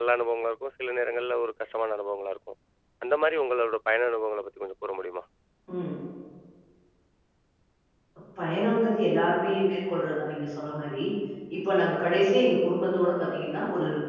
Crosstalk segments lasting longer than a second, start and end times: none

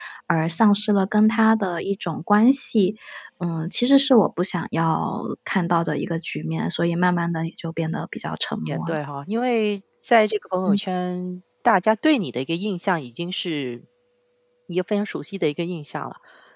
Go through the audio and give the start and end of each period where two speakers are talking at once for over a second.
none

